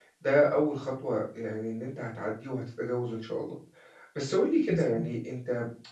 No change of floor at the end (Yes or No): Yes